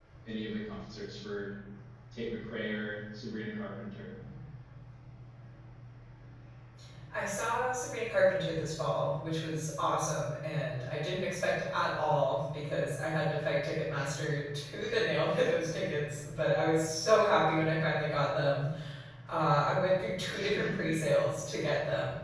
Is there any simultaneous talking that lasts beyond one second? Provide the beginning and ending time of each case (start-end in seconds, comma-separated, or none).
none